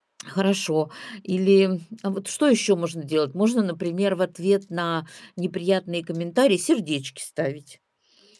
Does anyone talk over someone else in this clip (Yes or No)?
No